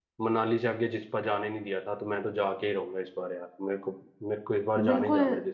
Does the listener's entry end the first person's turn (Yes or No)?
Yes